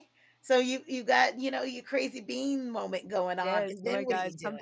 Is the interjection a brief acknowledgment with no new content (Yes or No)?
No